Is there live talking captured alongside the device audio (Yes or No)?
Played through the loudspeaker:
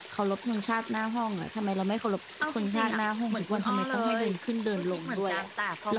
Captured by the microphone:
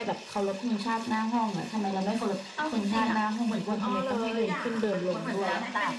Yes